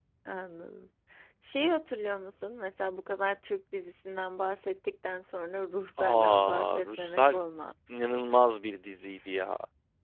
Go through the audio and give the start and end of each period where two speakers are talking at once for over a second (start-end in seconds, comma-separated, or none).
6.0-7.4